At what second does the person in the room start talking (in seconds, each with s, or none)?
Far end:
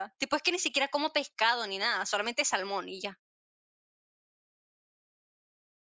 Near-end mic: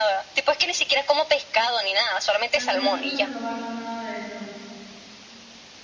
2.5 s